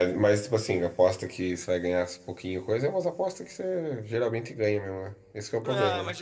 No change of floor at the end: No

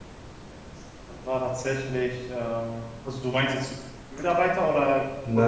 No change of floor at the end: No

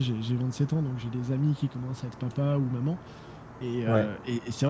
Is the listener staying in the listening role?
Yes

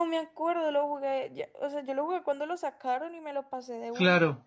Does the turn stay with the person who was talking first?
No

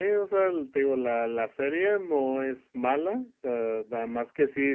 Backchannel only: Yes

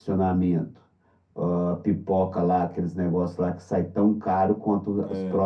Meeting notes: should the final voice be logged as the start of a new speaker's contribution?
No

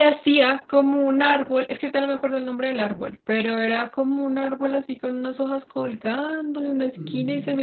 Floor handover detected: No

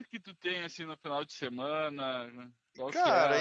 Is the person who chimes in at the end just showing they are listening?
No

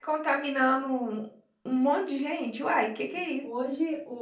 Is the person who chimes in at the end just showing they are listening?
No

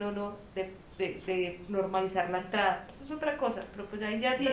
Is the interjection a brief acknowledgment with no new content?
No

